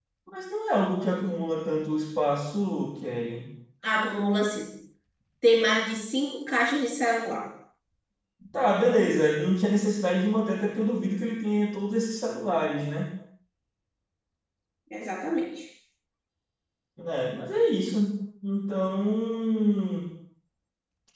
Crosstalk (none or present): none